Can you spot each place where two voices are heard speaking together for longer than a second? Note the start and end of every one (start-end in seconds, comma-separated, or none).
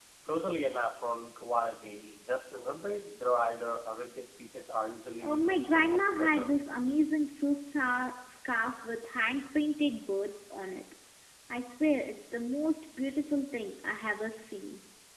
5.2-6.5